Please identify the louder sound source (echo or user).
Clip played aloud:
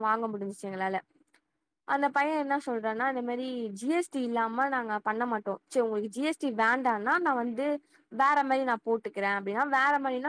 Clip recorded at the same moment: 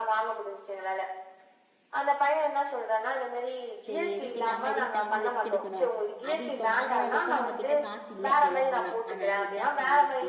echo